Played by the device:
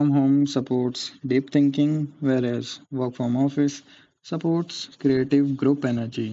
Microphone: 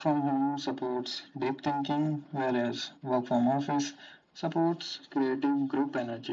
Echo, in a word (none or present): present